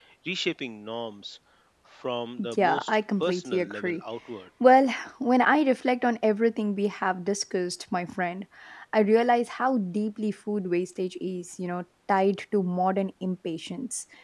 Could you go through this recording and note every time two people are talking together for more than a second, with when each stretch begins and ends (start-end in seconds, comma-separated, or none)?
2.5-4.0